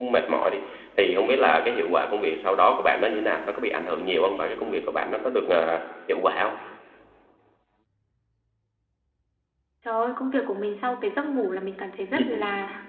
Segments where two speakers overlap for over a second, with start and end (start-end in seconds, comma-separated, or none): none